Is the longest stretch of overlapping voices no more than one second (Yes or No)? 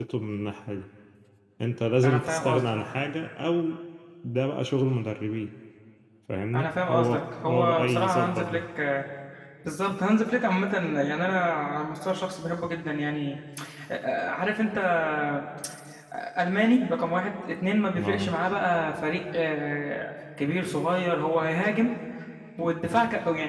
No